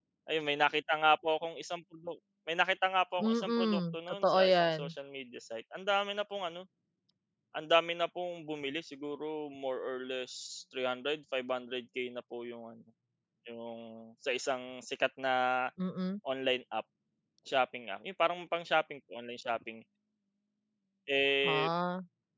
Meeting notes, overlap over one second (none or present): present